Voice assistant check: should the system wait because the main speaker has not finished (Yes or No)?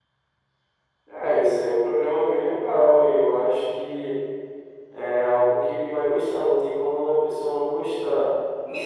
No